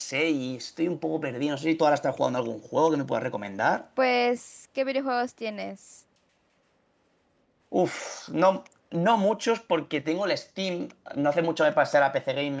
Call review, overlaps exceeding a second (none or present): none